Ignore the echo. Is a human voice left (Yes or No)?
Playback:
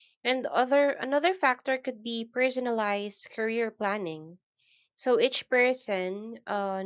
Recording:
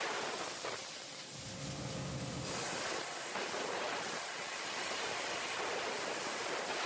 No